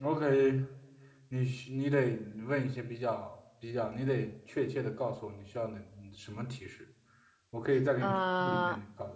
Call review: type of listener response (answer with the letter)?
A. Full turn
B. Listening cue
B